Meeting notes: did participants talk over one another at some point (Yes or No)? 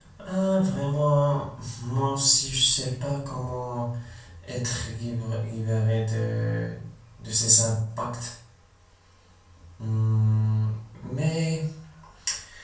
No